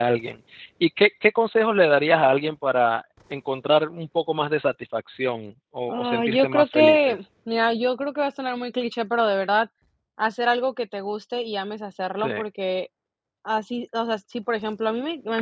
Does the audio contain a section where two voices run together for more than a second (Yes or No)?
Yes